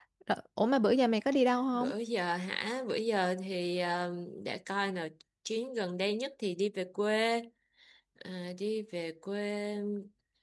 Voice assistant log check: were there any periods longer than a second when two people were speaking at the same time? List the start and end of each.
none

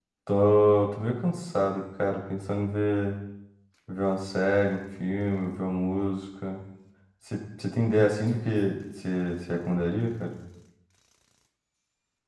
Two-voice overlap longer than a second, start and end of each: none

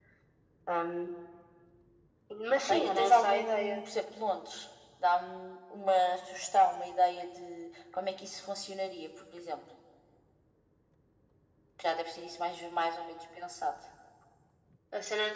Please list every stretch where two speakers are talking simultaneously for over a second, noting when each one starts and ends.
2.6-3.8

